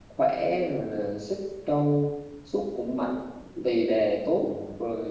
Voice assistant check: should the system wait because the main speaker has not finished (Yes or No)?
Yes